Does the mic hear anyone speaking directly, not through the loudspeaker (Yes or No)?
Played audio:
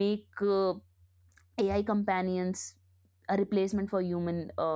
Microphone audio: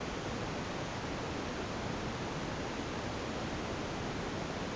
No